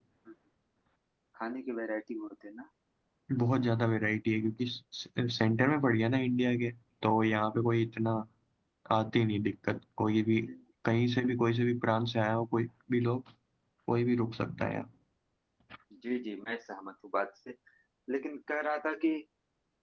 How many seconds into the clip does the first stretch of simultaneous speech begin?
none

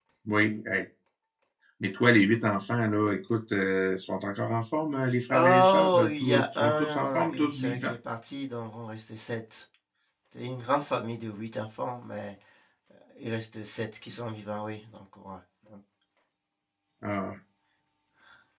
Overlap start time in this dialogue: 5.3 s

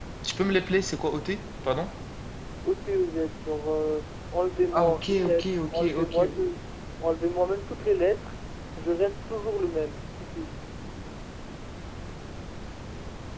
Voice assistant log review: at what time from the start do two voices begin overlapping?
4.7 s

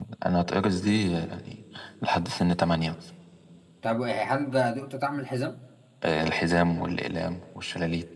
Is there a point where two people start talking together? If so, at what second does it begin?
none

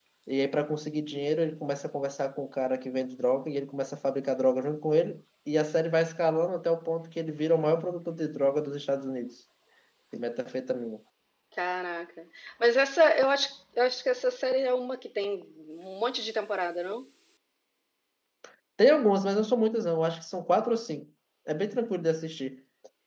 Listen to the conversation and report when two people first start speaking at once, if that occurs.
none

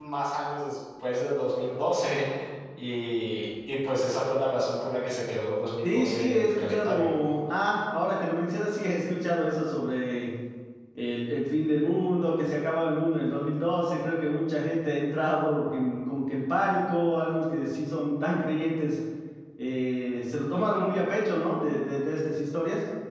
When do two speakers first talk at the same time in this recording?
5.8 s

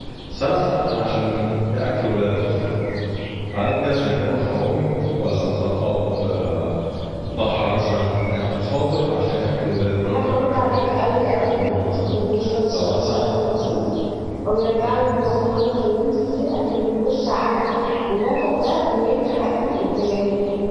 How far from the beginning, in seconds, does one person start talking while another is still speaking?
10.0 s

